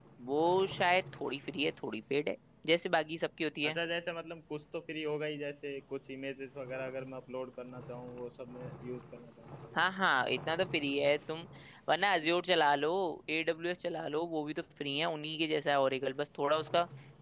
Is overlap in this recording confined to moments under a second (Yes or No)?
Yes